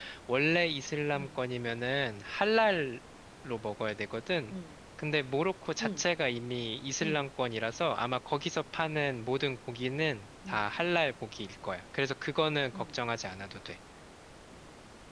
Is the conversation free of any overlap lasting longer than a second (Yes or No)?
Yes